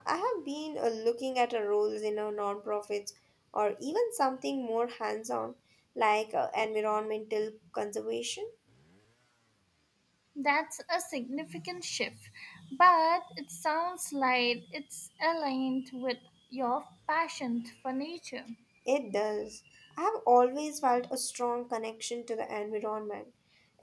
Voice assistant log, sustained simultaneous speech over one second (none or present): none